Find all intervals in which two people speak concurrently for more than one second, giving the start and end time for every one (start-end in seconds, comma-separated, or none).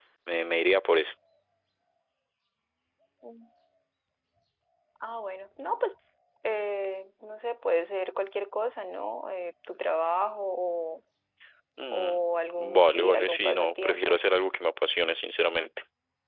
12.7-14.2